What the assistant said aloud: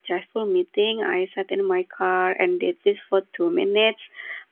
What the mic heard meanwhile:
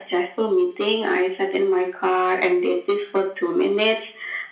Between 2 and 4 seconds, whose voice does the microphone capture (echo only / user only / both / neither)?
echo only